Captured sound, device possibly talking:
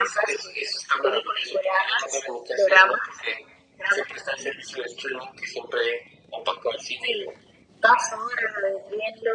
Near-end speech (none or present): none